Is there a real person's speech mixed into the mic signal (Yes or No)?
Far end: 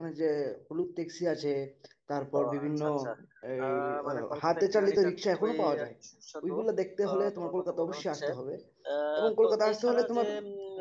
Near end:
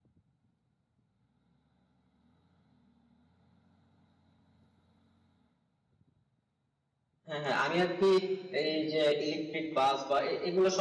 Yes